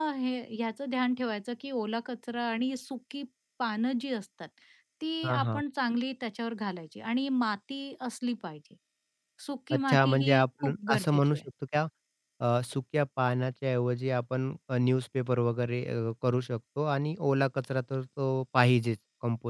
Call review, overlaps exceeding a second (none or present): present